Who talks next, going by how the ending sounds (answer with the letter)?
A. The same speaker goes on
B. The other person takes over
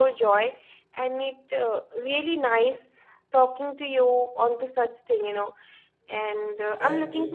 A